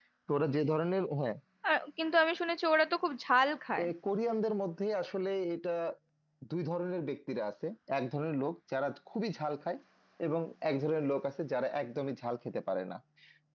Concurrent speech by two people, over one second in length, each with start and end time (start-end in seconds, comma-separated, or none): none